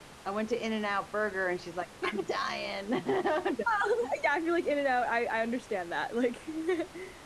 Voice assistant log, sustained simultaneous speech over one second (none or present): none